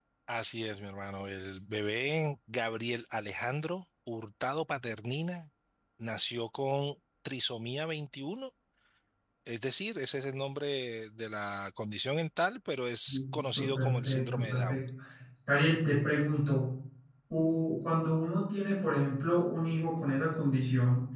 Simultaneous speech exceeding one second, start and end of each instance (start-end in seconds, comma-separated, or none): 13.1-14.8